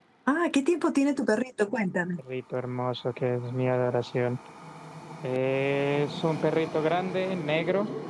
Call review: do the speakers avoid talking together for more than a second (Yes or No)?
Yes